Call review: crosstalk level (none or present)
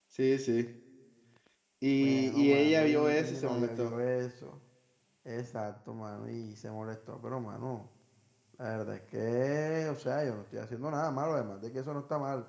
present